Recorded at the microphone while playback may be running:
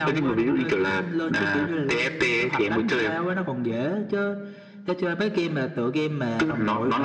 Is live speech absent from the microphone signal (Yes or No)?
Yes